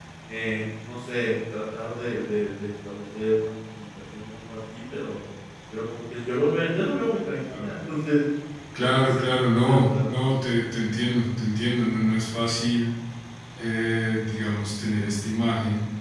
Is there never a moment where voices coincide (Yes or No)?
No